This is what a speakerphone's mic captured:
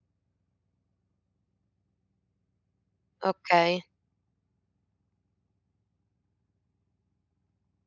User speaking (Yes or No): Yes